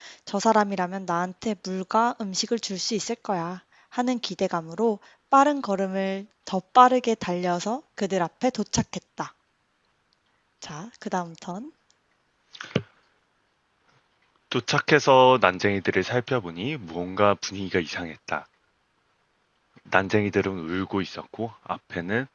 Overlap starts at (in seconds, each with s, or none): none